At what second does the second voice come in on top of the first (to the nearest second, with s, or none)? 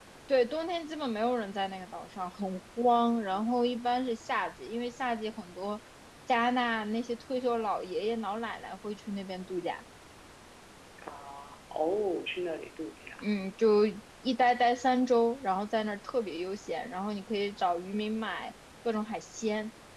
none